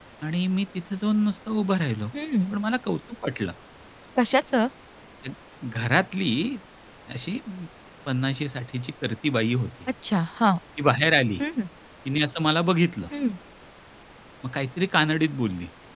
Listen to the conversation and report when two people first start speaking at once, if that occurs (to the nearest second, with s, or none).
none